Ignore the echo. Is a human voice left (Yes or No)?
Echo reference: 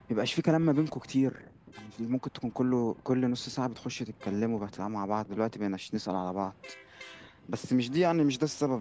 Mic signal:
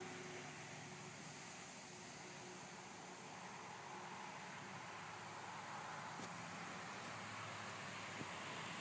No